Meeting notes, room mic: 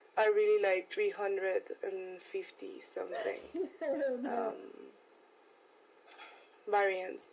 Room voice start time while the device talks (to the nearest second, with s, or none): 3 s